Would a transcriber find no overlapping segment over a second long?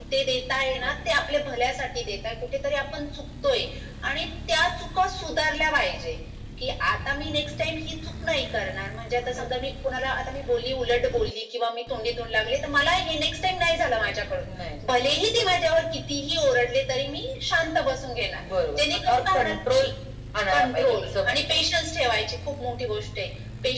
No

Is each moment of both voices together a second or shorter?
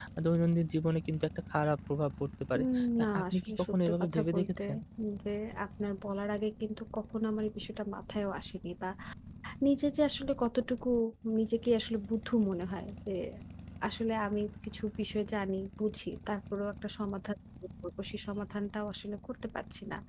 No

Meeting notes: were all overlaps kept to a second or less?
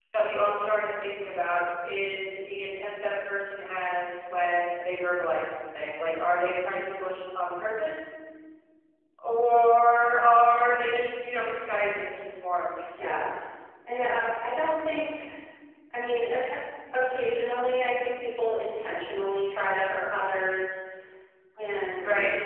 Yes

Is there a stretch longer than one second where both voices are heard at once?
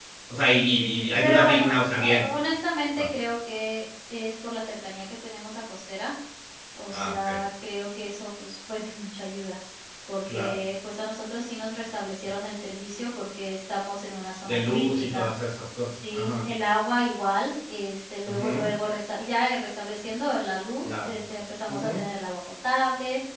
Yes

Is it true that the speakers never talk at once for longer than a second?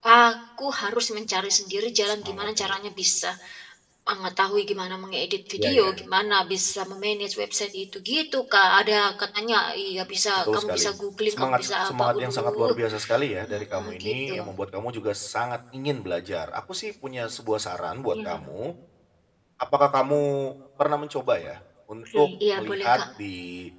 No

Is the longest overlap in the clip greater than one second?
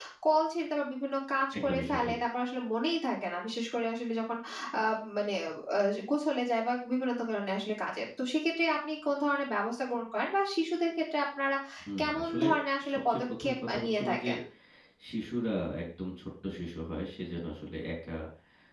Yes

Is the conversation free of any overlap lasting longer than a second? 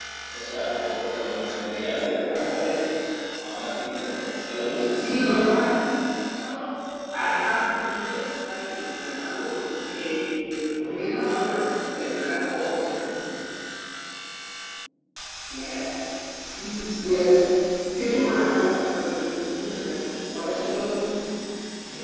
Yes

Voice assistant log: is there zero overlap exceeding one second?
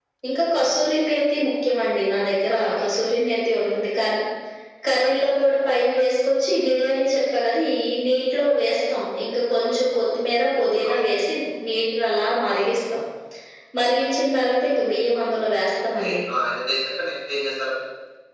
Yes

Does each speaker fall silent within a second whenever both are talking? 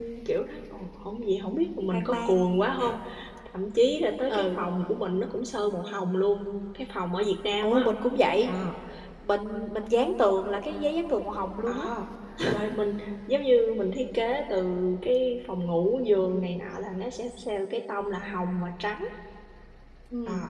Yes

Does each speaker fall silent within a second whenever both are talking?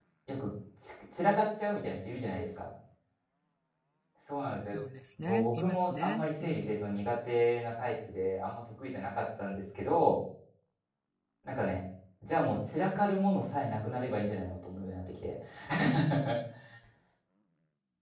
No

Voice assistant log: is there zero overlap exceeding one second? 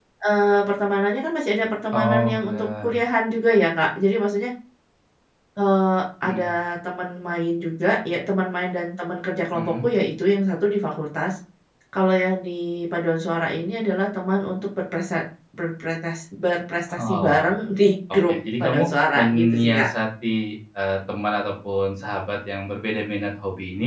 No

